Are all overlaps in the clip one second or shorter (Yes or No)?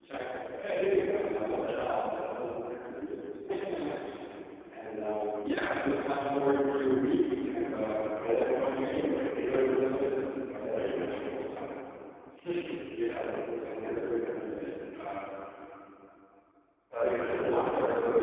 No